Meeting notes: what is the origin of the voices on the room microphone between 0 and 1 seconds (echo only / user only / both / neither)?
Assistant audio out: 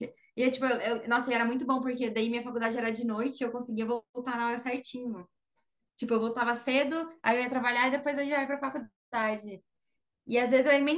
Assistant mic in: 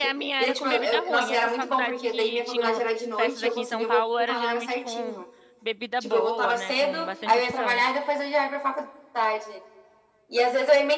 both